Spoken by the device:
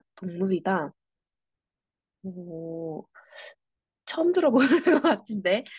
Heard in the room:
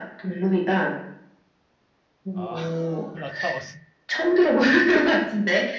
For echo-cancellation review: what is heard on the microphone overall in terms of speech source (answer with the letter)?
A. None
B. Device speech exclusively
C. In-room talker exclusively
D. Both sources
D